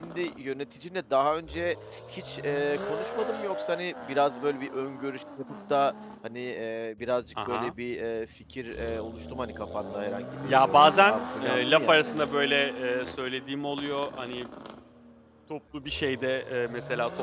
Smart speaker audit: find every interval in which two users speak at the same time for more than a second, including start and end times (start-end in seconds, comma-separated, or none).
10.4-12.1